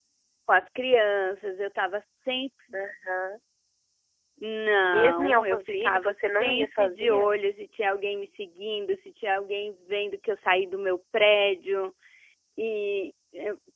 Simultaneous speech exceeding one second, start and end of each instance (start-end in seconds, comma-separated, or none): 4.9-7.3